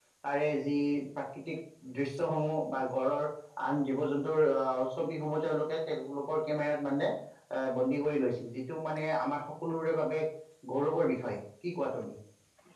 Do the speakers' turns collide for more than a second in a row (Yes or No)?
No